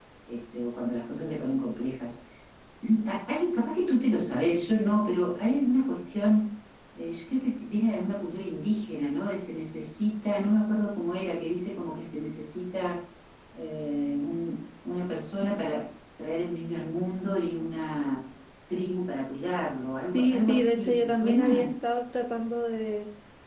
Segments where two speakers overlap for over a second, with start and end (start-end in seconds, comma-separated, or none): 20.0-21.7